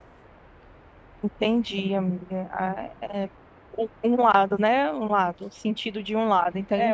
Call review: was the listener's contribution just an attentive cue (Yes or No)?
No